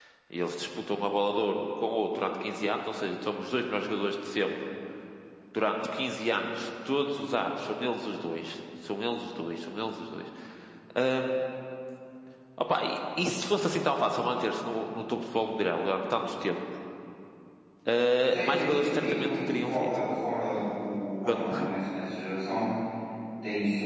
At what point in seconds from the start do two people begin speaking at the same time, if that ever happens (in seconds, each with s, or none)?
18.3 s